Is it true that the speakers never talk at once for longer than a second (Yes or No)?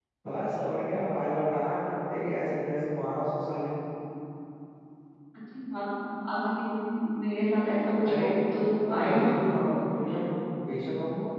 Yes